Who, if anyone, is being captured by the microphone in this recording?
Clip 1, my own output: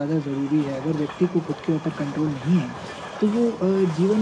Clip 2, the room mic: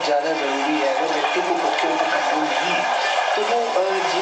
echo only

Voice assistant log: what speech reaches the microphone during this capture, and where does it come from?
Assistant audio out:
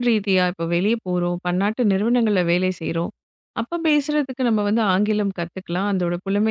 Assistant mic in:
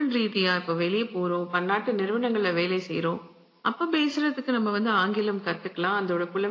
echo only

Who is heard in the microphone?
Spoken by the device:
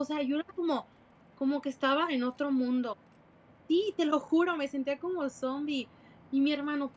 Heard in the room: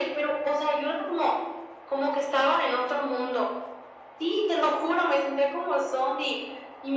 echo only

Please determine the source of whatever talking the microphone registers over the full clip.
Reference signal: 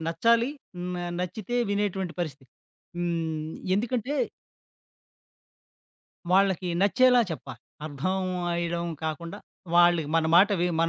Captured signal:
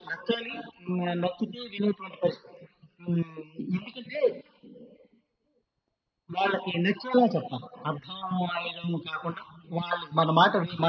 echo only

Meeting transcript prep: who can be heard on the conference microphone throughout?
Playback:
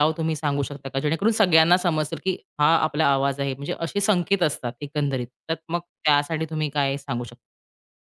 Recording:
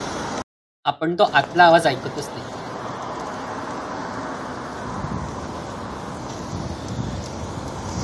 user only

